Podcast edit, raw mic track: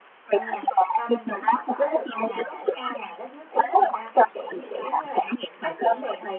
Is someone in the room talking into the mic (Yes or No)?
Yes